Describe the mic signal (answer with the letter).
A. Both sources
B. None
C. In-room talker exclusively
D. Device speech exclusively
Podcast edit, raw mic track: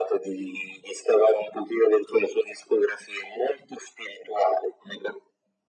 D